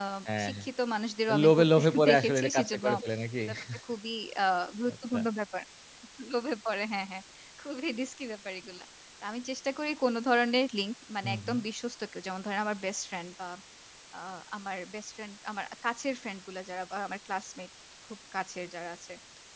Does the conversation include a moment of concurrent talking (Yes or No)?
Yes